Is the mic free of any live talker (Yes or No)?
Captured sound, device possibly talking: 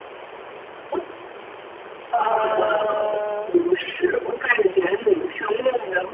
No